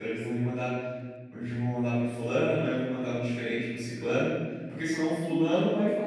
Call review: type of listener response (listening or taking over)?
listening